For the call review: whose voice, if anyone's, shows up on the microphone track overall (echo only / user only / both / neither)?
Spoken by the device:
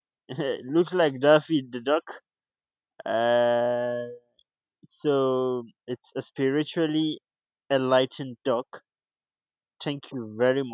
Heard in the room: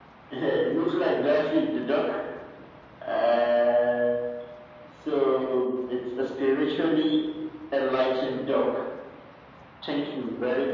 echo only